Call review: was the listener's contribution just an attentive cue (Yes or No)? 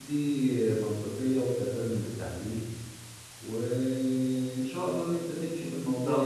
No